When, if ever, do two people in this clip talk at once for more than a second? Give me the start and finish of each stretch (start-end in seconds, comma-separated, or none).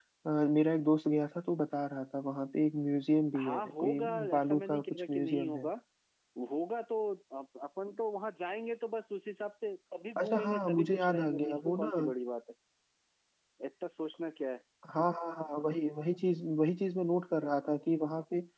3.4-5.7, 10.2-11.9